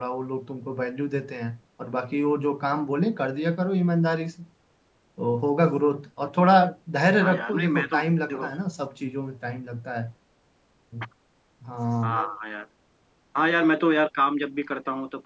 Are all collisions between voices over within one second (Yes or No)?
No